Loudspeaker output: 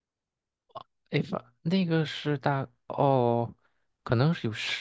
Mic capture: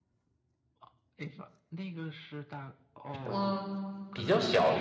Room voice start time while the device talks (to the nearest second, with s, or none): 3 s